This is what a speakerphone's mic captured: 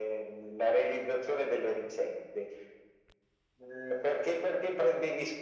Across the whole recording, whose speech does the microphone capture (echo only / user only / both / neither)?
echo only